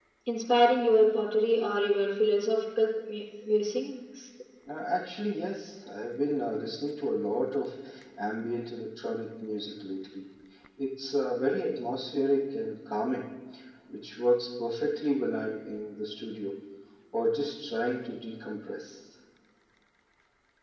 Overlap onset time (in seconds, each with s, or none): none